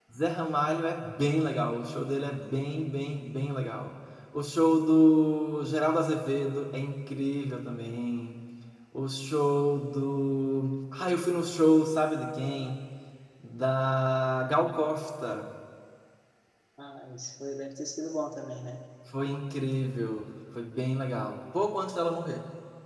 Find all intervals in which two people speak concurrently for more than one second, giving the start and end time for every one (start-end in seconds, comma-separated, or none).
none